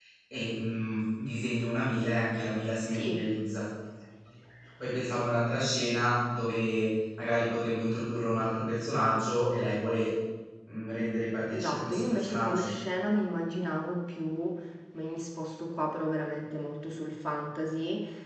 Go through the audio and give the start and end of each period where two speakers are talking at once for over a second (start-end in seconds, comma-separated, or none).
11.5-12.7